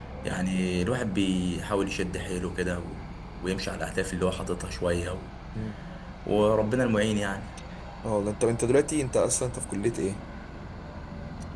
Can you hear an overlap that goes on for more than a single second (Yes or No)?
No